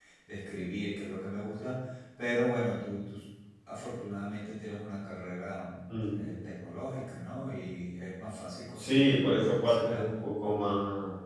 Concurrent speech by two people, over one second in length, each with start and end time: 8.8-10.1

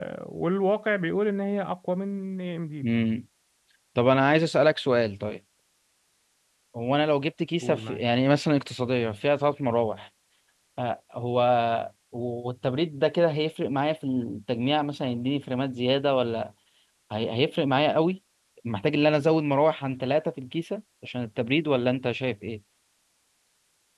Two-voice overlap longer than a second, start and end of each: none

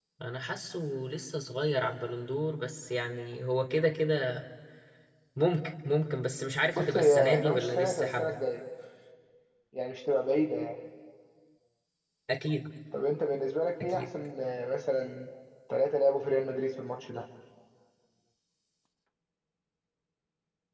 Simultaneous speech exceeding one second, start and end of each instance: 6.8-8.4

